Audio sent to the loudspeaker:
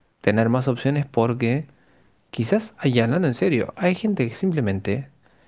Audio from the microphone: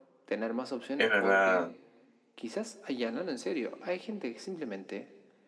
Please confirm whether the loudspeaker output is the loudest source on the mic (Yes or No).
No